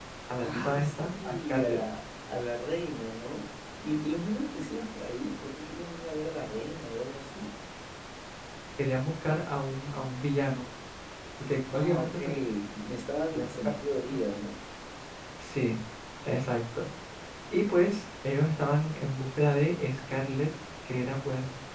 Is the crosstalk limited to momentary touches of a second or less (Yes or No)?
No